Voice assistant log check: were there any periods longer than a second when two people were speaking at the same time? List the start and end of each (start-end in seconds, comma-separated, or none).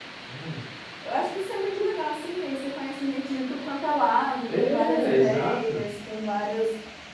4.5-5.9